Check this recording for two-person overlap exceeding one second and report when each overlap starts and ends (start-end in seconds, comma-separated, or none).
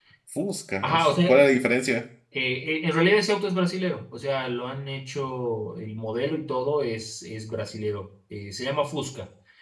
none